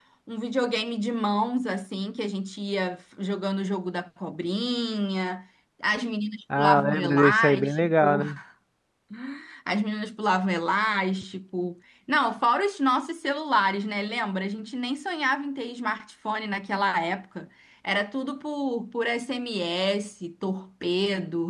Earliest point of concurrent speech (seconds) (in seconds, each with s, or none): 6.5 s